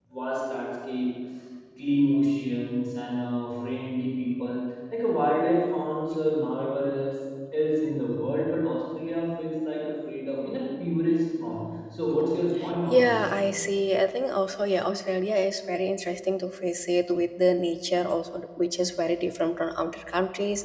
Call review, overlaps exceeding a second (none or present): none